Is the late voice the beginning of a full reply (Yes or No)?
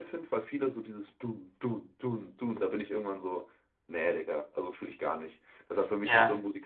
No